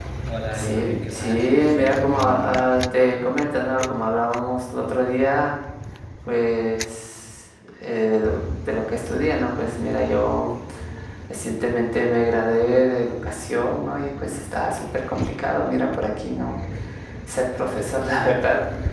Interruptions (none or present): present